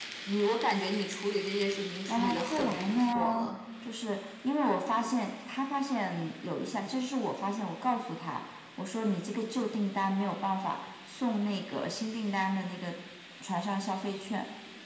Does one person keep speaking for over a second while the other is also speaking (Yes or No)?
Yes